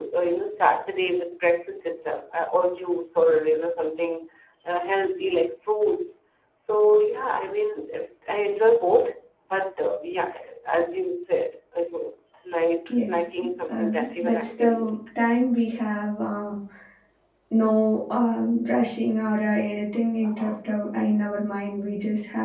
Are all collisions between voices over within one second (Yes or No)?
No